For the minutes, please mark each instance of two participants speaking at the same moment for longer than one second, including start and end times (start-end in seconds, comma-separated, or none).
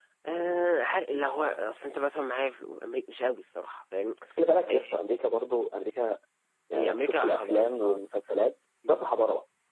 6.7-8.0